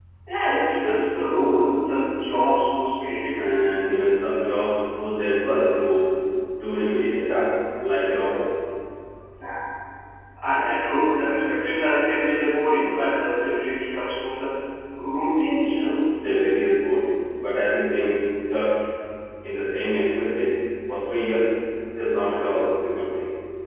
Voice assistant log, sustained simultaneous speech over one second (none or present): none